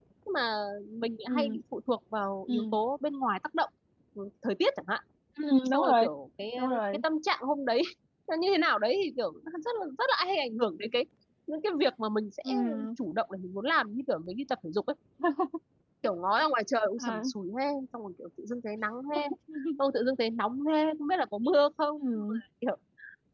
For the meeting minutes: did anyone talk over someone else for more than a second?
No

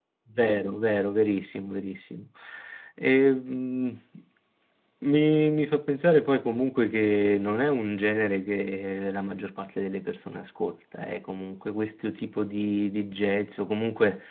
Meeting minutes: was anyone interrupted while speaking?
No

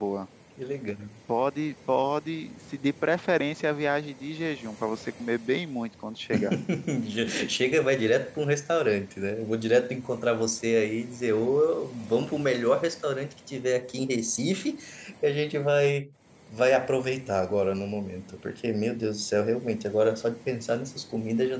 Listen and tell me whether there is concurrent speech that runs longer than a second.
No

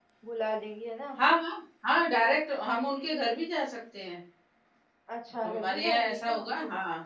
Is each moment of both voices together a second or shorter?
No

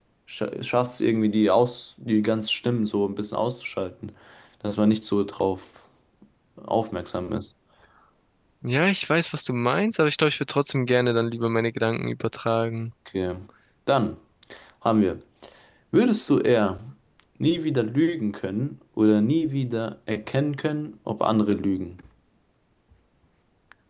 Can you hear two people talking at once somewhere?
No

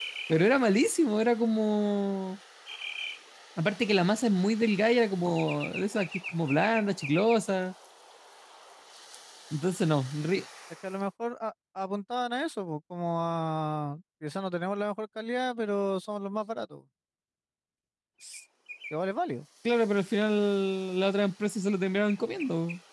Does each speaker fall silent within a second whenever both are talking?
Yes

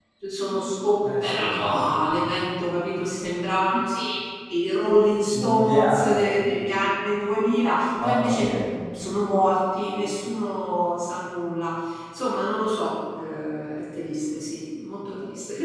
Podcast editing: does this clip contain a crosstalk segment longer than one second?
Yes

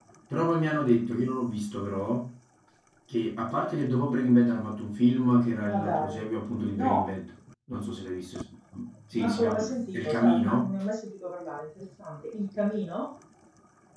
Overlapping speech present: Yes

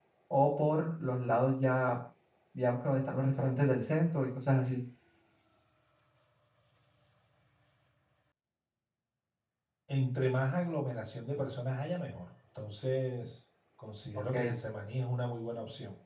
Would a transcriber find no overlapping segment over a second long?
Yes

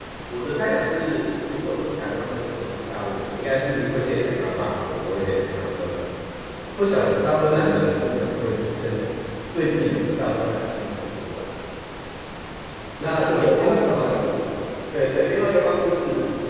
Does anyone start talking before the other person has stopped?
Yes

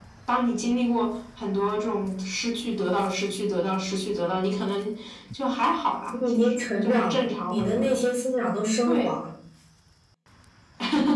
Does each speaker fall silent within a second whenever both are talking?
No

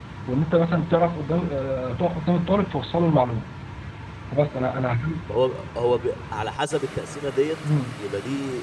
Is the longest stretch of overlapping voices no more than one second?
Yes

